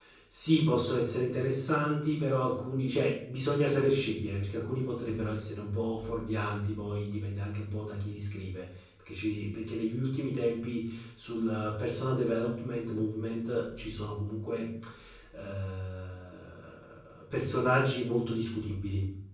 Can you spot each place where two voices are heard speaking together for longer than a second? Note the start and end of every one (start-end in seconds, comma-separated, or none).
none